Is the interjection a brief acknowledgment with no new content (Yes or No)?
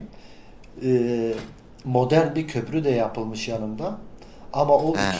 Yes